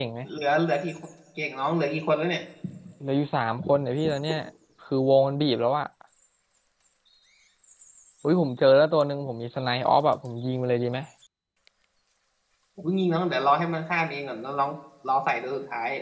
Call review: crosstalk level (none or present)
none